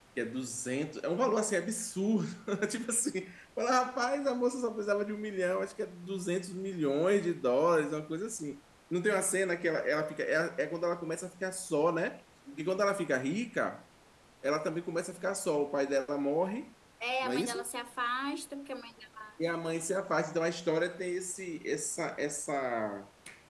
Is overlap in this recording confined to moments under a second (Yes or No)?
Yes